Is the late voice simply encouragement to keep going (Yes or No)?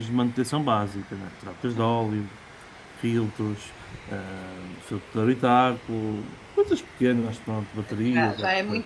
No